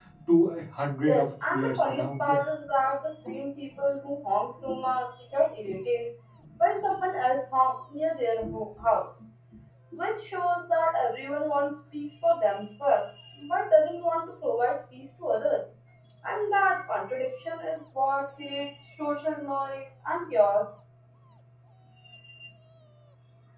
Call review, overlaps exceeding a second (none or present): present